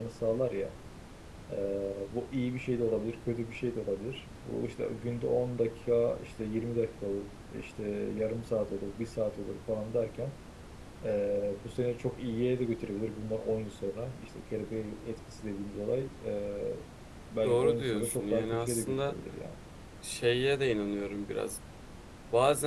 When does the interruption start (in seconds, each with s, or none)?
17.4 s